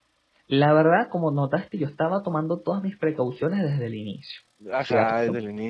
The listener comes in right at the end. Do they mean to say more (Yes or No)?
Yes